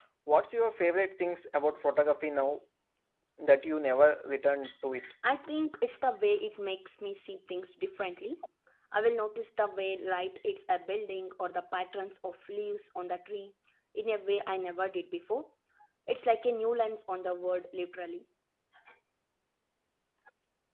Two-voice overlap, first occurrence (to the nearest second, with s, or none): none